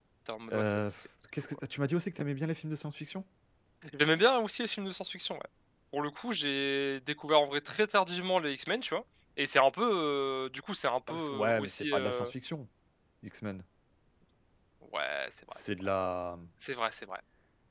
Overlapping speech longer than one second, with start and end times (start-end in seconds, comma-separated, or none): 11.1-12.3